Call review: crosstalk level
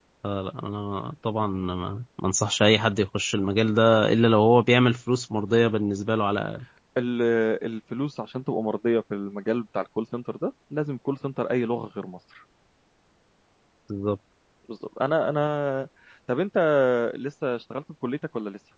none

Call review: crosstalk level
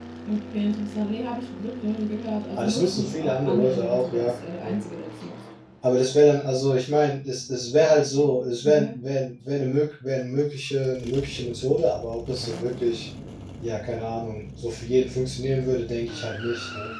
present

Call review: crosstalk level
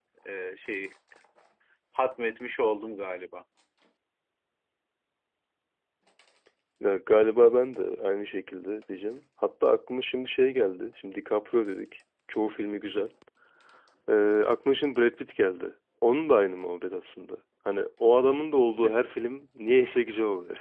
none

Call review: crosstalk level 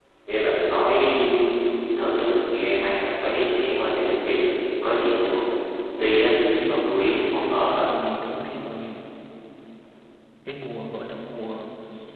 present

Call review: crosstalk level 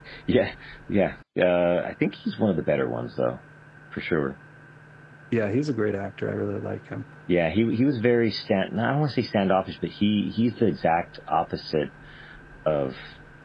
none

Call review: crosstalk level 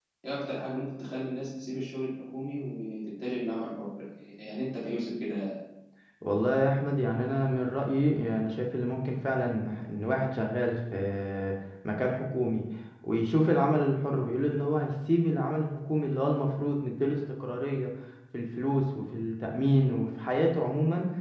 none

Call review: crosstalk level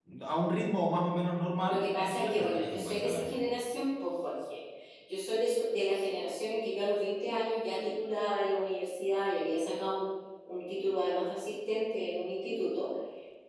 present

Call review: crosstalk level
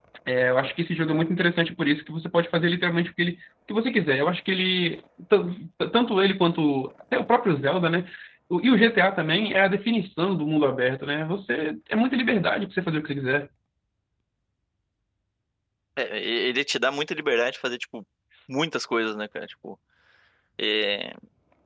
none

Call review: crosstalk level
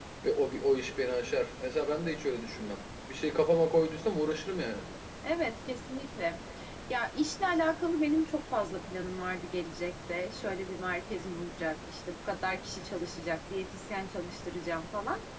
none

